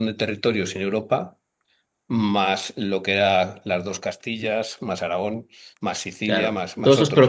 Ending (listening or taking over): taking over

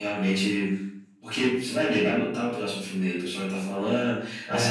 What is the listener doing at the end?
listening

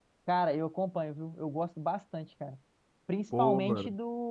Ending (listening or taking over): listening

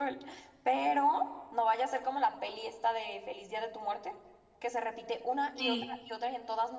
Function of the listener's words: listening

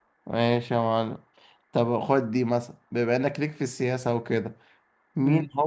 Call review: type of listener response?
listening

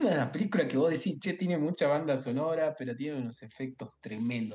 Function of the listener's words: taking over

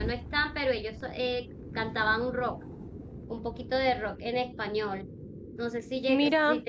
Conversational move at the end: listening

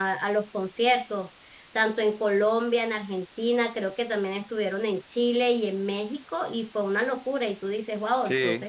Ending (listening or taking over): listening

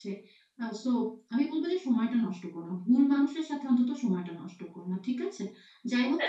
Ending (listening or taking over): listening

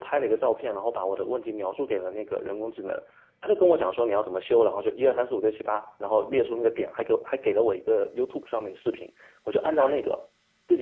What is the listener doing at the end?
listening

